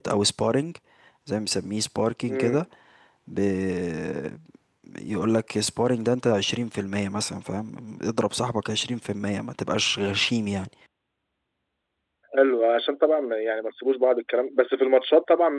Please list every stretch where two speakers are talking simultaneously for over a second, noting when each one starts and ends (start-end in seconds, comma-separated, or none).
none